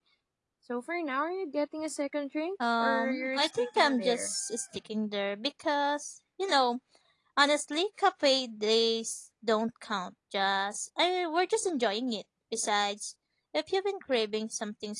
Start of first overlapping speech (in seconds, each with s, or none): 2.6 s